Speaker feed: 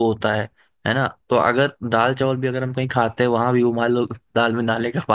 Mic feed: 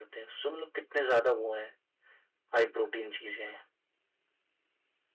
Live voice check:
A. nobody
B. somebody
B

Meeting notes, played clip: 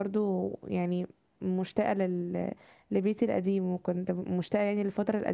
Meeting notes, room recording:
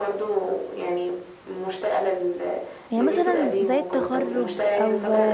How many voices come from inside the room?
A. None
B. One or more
B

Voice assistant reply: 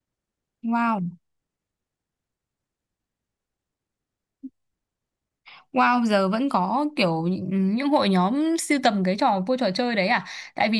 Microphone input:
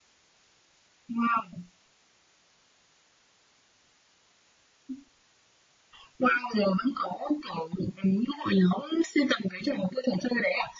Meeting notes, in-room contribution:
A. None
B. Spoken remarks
A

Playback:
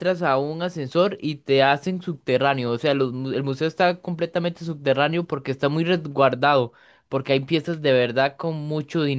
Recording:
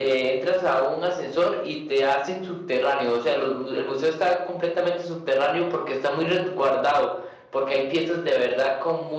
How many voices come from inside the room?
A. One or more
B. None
B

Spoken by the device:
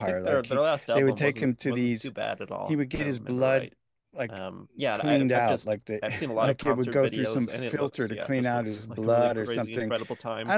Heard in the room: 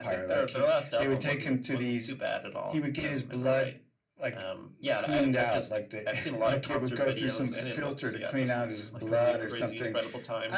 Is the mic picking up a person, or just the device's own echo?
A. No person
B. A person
A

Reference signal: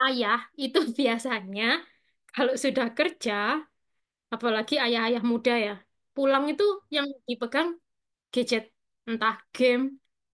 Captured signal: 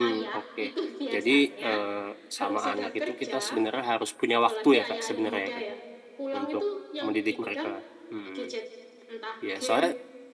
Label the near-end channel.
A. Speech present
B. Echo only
A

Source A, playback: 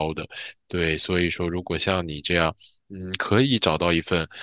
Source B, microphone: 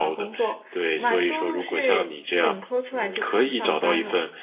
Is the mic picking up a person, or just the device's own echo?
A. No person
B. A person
B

